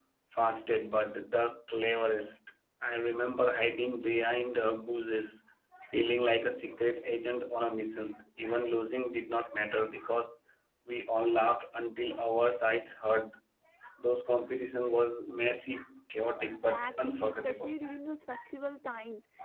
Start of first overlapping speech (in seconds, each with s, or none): 16.5 s